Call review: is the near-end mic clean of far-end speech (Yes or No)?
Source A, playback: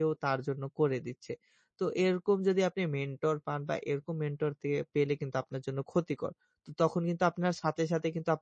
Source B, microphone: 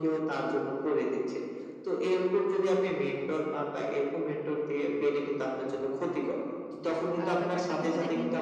No